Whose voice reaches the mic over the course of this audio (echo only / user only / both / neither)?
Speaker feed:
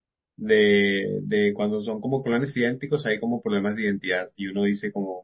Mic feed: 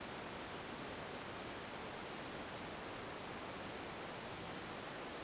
neither